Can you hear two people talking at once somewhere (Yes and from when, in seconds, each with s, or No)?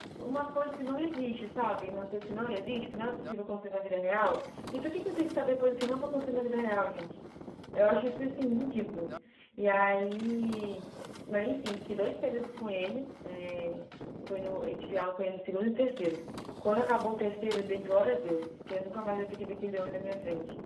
No